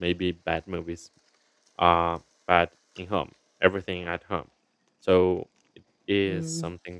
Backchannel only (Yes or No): No